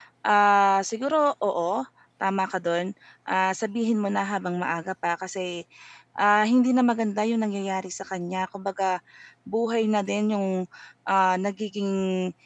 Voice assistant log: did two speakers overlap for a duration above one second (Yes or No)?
No